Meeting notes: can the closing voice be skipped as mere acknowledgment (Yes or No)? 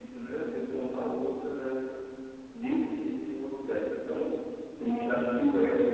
Yes